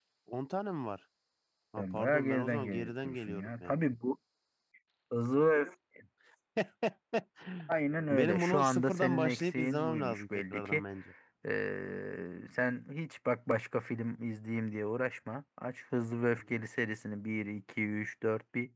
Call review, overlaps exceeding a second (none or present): present